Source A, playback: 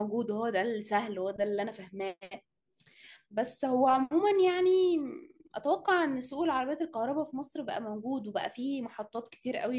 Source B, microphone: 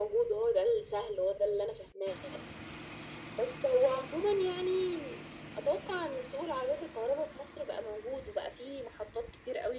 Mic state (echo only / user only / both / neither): echo only